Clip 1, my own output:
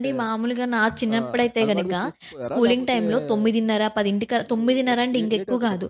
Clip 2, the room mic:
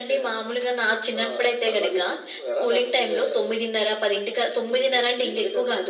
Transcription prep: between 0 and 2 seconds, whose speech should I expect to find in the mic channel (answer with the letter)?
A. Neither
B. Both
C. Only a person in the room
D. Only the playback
D